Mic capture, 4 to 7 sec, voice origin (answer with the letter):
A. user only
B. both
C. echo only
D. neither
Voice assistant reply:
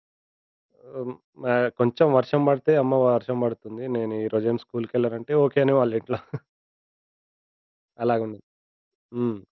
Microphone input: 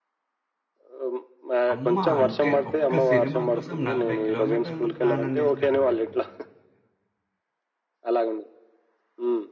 B